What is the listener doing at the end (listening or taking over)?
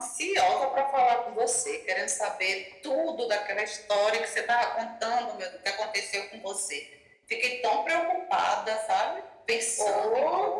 taking over